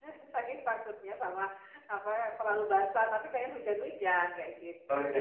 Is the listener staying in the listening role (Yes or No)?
No